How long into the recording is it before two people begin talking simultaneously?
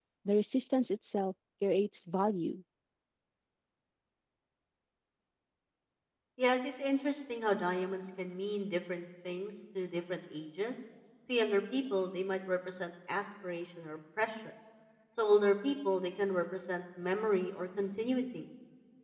none

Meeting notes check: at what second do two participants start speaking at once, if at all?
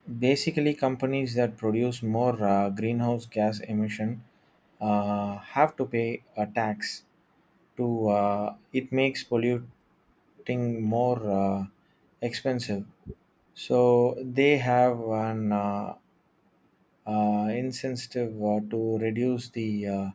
none

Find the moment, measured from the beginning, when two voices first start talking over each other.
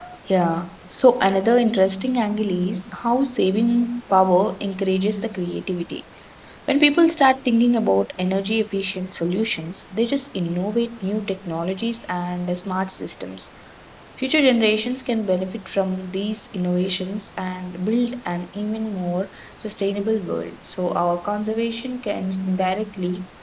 none

